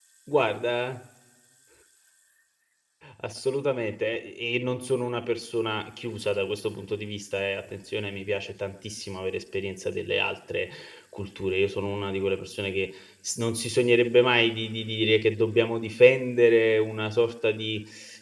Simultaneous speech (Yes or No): No